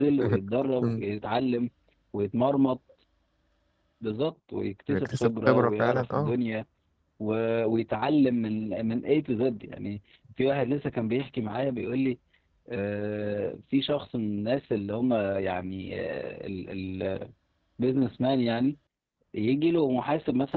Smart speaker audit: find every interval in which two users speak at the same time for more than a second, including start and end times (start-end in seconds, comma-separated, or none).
4.9-6.3